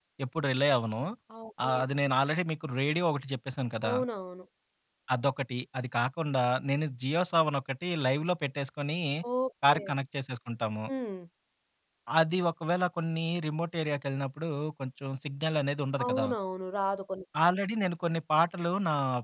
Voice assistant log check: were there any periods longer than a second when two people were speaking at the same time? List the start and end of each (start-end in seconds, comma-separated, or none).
none